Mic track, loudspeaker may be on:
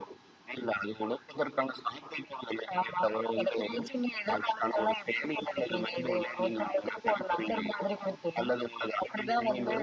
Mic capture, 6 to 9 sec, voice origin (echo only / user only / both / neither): echo only